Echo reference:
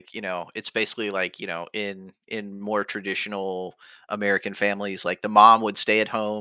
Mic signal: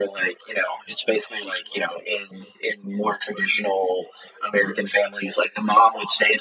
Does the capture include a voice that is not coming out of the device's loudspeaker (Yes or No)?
No